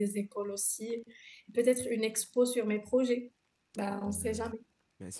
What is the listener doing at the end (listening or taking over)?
taking over